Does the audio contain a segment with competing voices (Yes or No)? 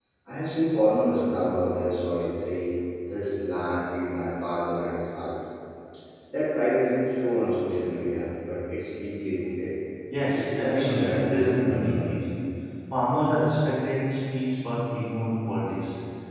Yes